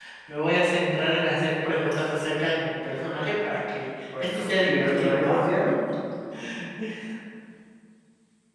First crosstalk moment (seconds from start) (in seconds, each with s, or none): 4.2 s